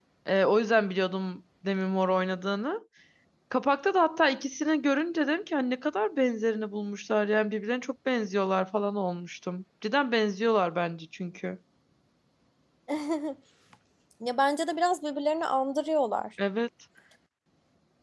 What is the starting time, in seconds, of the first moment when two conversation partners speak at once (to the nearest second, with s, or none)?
none